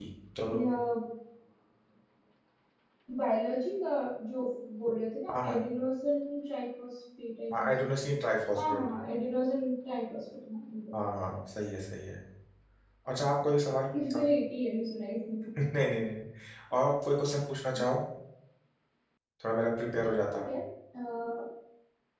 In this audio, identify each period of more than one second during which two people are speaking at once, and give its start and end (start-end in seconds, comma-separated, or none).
none